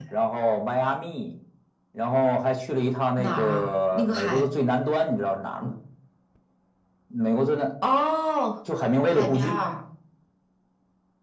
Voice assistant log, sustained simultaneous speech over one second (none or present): present